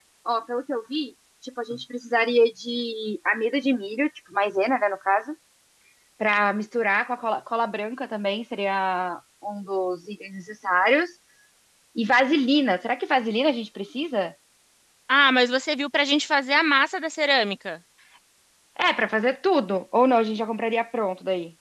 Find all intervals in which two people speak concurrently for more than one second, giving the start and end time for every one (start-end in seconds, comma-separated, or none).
none